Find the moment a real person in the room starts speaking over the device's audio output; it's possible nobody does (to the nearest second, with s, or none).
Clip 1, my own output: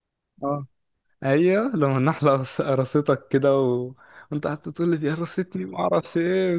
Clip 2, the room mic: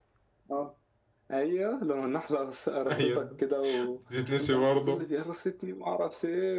3 s